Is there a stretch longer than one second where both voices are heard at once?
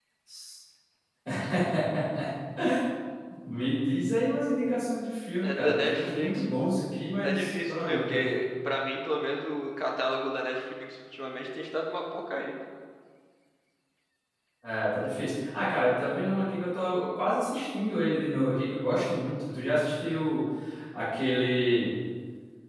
Yes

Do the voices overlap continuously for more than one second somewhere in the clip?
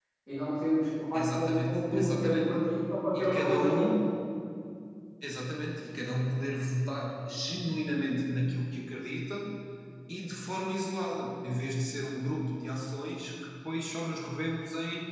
Yes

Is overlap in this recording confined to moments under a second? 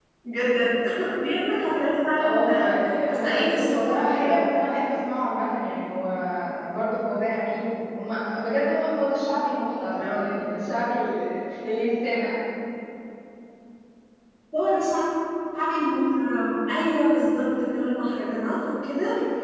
No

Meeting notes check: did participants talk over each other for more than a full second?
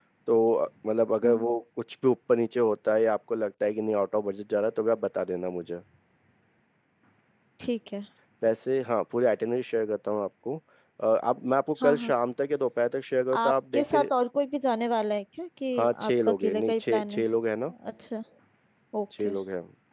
Yes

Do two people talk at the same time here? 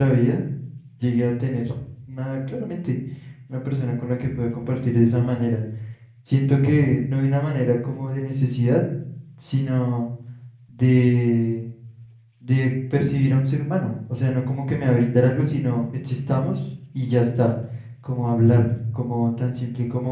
No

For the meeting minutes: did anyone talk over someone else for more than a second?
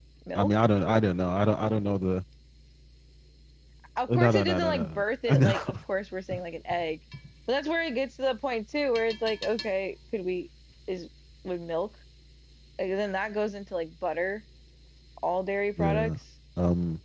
Yes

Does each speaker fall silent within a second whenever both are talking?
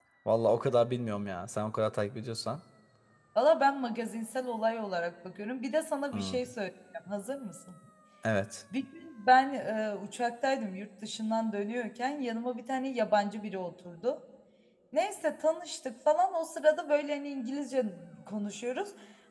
Yes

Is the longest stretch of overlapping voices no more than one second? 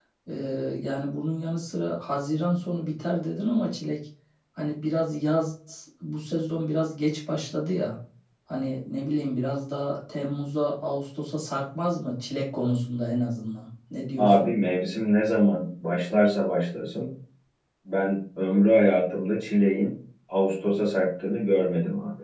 Yes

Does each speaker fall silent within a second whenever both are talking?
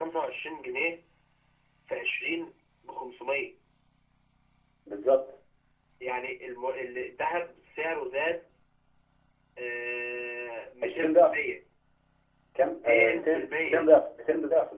No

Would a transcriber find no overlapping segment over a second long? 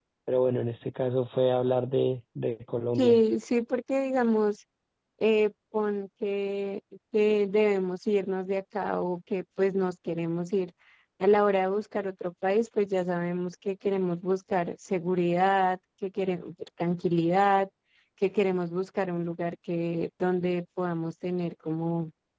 Yes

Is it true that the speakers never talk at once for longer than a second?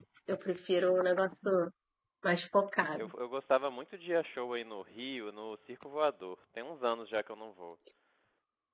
Yes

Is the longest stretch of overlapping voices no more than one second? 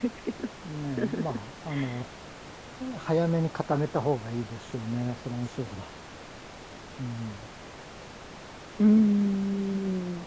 Yes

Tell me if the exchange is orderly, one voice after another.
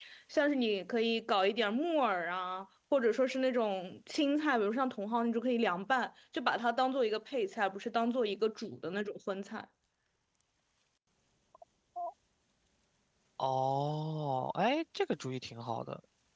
Yes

